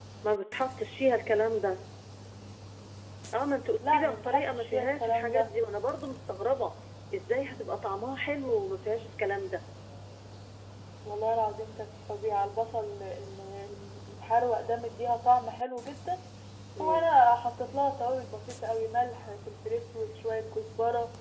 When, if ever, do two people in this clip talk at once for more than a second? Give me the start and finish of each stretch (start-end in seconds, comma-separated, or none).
3.9-5.5